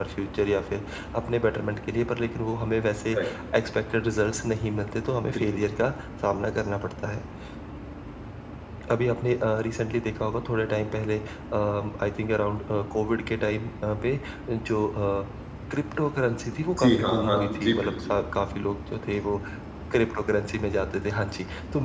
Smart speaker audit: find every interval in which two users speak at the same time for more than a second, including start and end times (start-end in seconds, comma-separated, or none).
16.8-18.1